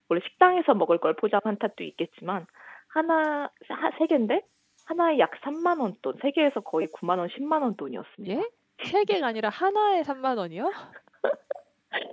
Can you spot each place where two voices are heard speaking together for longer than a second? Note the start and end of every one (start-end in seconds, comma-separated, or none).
none